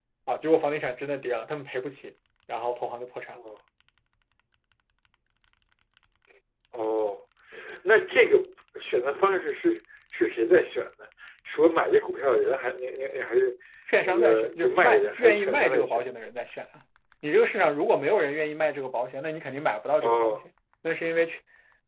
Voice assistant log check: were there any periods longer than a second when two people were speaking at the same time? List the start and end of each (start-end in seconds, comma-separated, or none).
14.0-16.0